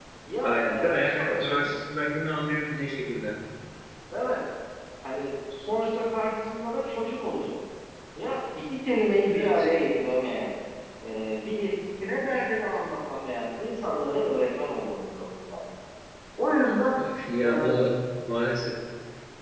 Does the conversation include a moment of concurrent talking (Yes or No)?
Yes